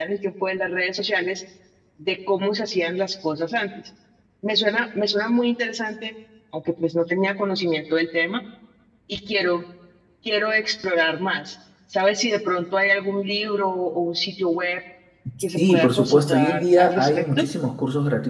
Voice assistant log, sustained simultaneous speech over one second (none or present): present